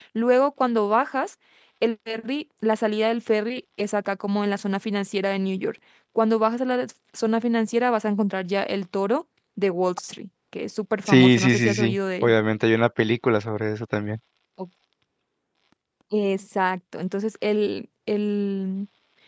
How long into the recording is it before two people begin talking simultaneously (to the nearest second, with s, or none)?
11 s